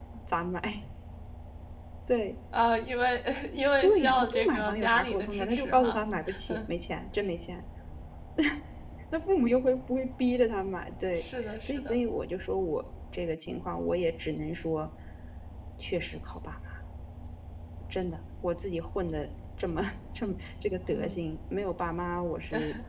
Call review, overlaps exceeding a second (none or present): present